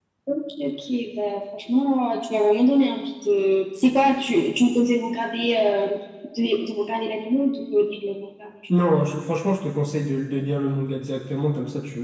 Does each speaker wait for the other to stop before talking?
Yes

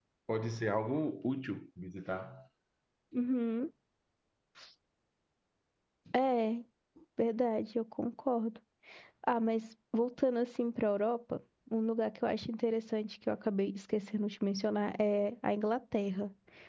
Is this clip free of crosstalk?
Yes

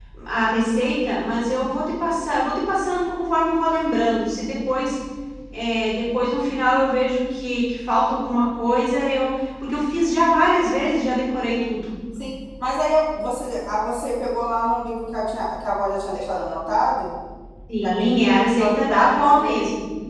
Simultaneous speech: Yes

